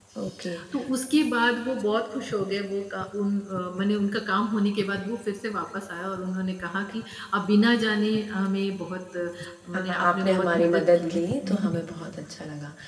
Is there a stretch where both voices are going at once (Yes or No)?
Yes